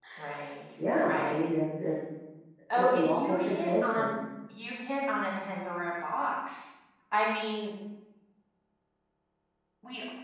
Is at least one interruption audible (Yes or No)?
Yes